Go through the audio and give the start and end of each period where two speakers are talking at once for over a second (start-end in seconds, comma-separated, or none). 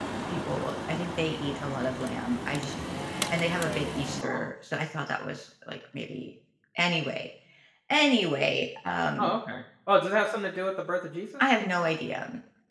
none